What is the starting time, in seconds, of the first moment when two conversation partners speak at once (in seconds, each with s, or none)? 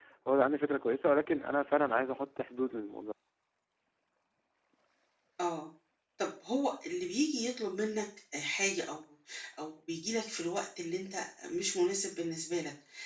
none